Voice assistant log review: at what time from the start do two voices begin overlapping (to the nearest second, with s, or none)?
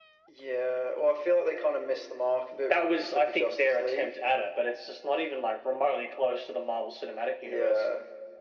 3 s